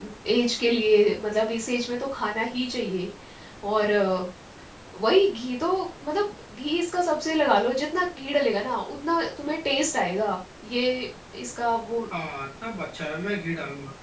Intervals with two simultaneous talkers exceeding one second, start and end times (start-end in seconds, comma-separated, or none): none